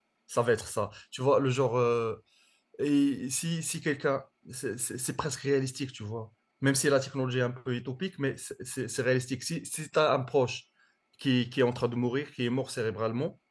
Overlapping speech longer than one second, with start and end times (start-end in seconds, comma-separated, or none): none